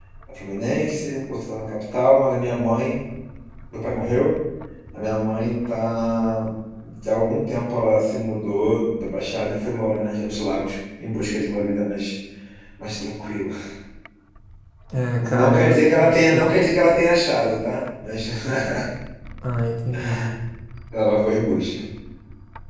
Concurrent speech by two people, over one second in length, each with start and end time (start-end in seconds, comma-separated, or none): 15.2-16.4